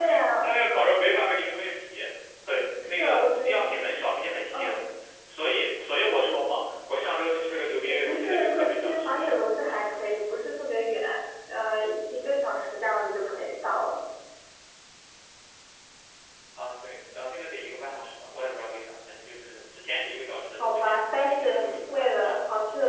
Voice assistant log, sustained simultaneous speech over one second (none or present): present